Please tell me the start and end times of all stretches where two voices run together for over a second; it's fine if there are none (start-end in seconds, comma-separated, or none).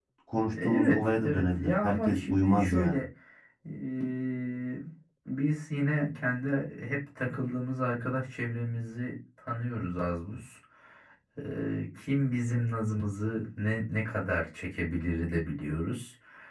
0.5-3.0